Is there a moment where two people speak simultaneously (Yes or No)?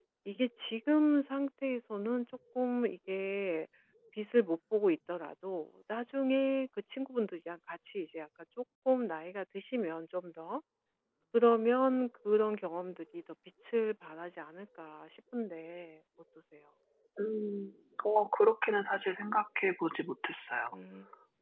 No